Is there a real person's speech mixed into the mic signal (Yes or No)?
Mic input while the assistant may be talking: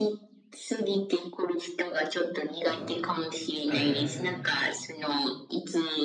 Yes